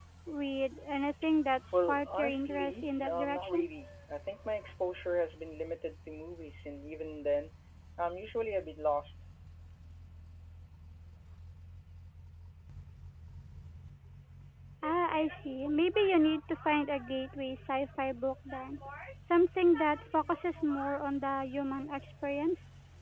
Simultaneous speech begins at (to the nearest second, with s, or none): 2 s